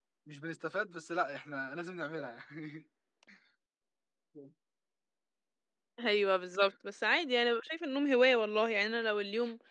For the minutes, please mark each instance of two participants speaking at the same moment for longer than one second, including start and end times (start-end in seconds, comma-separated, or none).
none